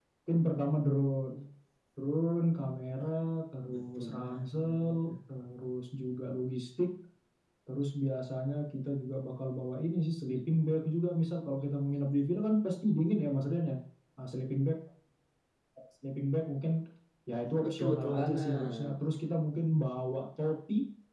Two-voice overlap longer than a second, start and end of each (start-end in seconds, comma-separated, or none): 3.7-5.2, 17.6-18.9